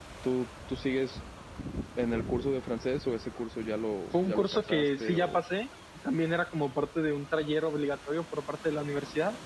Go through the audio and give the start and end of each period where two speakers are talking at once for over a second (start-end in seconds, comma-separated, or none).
4.1-5.4